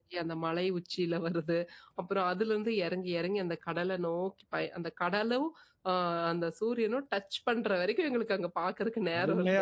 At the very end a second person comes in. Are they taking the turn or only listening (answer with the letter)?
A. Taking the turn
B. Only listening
A